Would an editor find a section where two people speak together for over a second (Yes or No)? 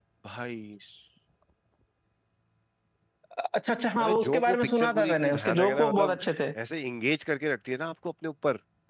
Yes